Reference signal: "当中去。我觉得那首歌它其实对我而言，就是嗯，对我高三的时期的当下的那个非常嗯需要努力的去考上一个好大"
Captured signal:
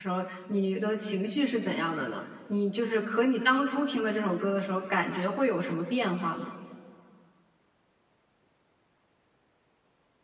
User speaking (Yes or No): Yes